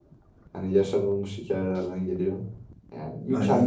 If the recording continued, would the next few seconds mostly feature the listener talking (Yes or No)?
No